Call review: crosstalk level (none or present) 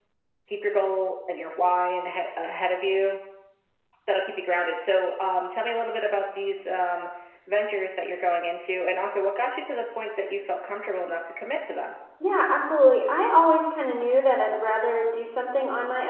none